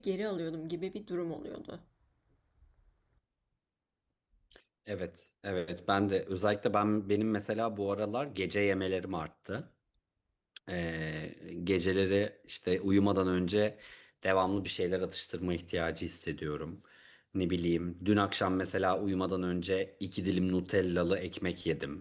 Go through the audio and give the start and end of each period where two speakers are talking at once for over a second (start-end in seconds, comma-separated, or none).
none